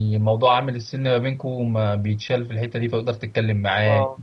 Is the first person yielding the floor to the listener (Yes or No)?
No